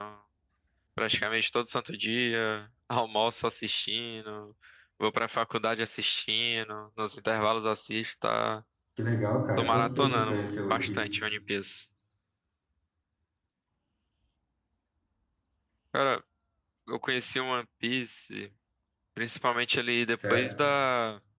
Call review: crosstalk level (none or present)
present